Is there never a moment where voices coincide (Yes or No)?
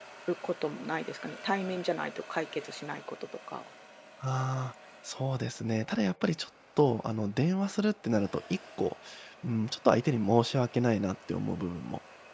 Yes